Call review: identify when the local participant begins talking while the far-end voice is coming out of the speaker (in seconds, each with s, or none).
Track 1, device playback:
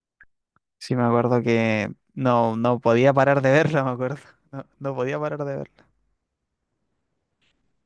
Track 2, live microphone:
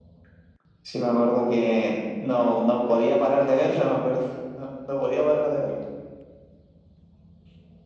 none